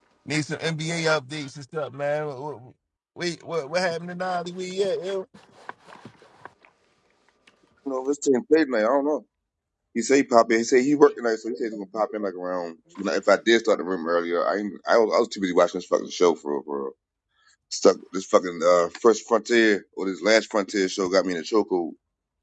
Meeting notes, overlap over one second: none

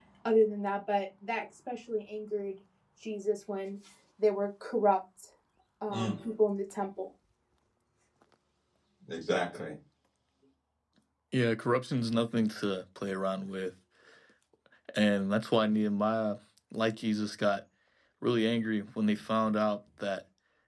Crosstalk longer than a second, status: none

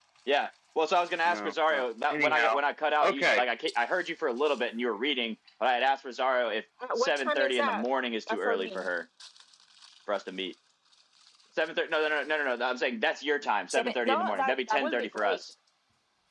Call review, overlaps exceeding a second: present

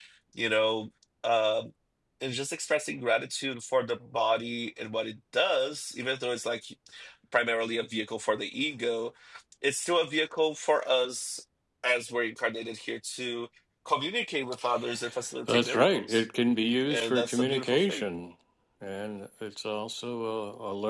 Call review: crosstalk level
present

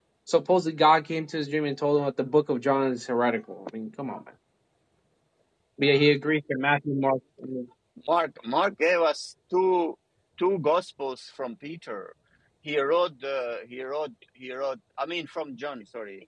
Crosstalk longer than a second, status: none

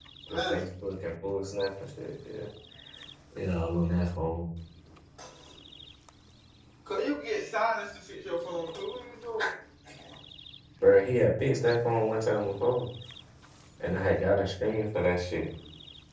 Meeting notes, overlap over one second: none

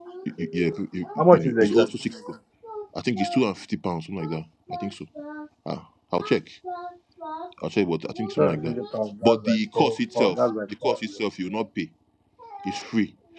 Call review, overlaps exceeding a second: present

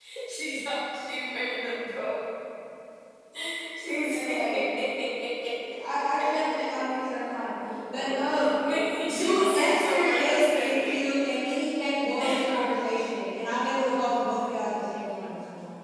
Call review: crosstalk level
present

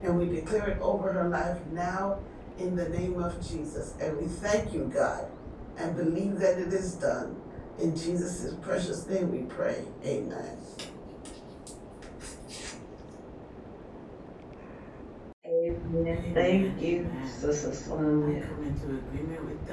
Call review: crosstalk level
present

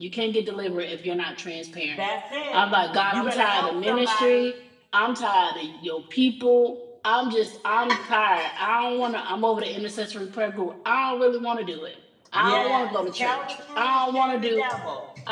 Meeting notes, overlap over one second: present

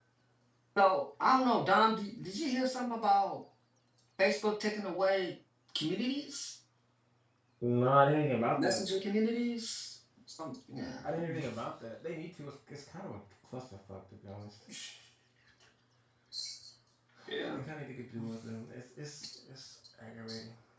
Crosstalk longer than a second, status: none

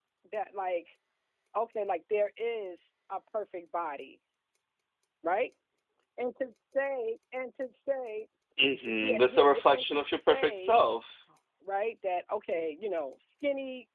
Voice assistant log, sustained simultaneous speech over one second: present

